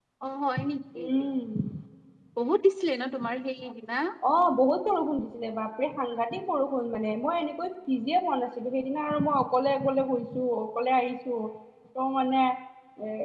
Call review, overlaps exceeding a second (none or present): none